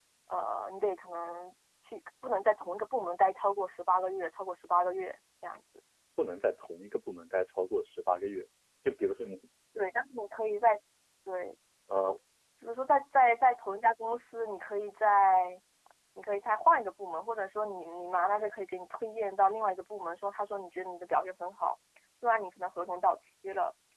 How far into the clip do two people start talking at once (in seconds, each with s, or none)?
none